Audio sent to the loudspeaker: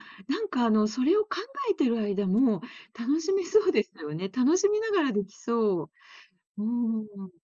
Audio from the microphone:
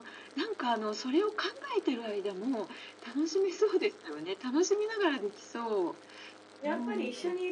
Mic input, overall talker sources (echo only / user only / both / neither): both